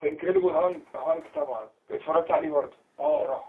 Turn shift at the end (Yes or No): Yes